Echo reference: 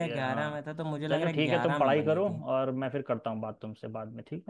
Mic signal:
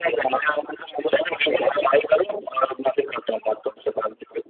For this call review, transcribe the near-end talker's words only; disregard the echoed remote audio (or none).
none